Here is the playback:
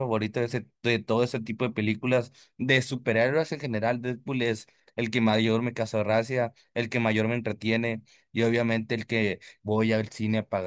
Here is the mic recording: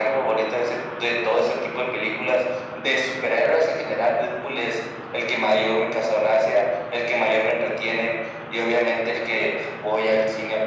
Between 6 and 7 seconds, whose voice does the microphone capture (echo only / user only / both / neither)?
echo only